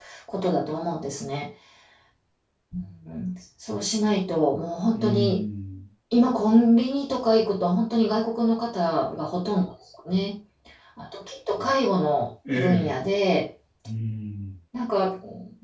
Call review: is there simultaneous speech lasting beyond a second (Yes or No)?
No